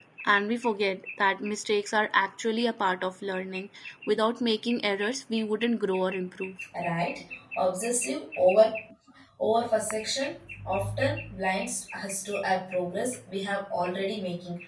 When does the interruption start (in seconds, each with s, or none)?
none